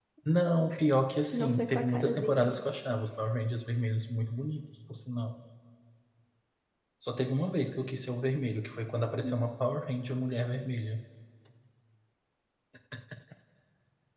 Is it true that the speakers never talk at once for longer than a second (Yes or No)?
No